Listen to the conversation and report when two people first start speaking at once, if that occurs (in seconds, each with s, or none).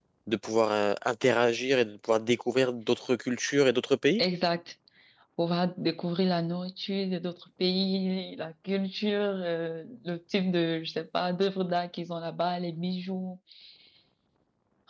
none